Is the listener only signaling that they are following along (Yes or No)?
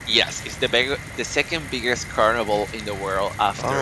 No